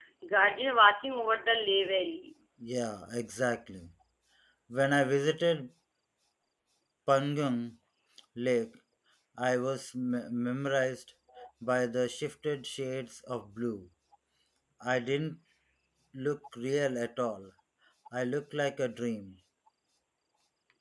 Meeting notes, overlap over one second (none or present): none